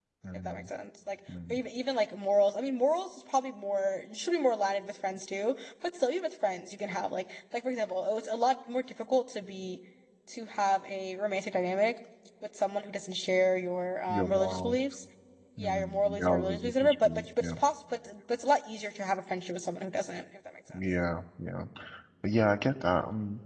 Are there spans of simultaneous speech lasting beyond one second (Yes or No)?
Yes